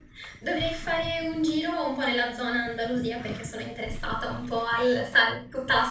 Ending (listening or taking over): listening